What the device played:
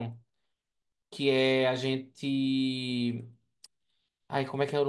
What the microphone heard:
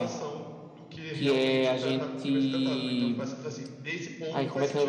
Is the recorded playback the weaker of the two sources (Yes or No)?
No